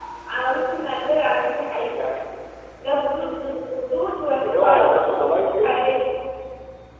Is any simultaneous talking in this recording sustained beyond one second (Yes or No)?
Yes